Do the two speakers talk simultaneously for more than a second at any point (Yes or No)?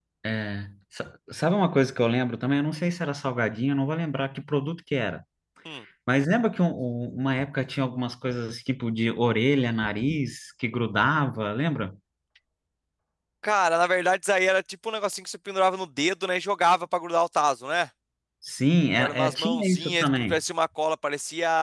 Yes